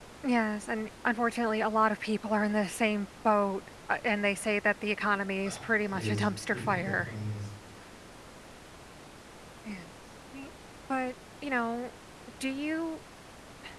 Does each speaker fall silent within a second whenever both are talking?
No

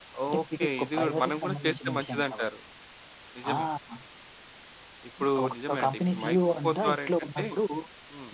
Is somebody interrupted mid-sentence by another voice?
Yes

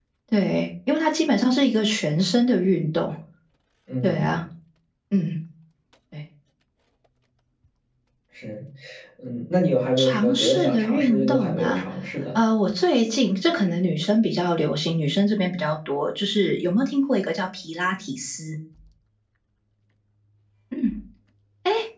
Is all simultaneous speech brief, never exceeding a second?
No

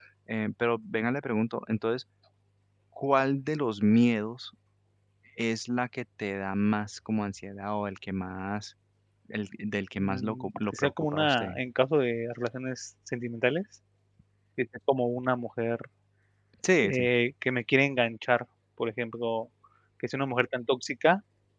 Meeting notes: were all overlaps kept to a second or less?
No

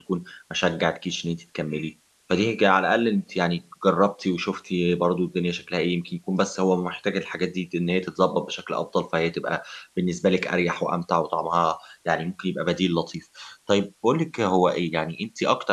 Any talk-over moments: No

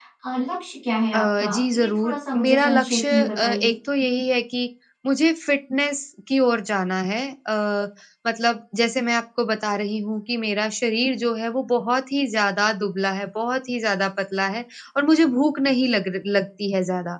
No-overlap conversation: No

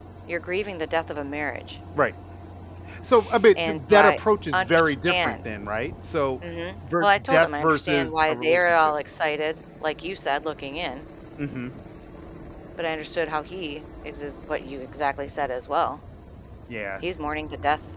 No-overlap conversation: No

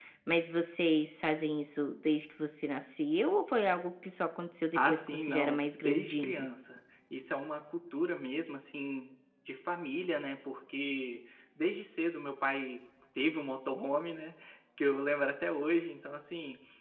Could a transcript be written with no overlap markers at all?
No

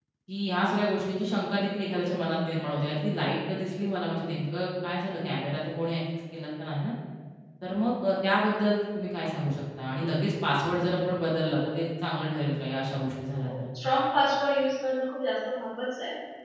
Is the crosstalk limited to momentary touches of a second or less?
Yes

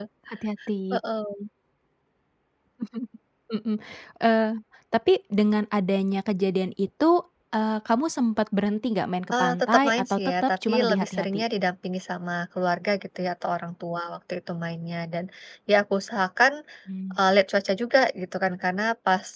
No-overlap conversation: No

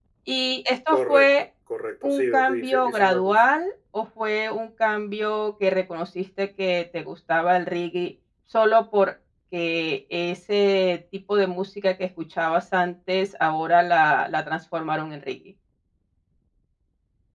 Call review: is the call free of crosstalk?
No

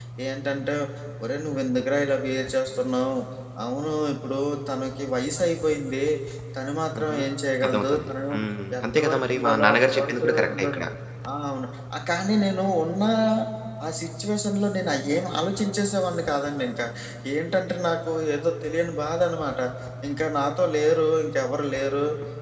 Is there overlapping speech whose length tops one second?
Yes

